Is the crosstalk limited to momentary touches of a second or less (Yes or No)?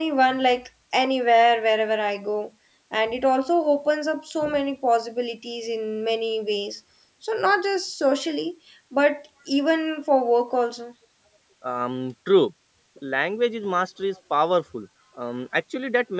Yes